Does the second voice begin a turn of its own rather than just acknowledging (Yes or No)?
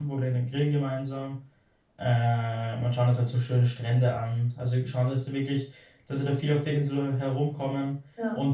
No